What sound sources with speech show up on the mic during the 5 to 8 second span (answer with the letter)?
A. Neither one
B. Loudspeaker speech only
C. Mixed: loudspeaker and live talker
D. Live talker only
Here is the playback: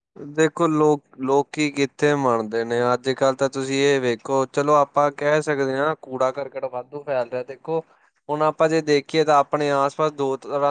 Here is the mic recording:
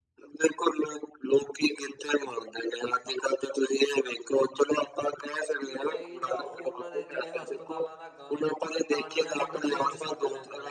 C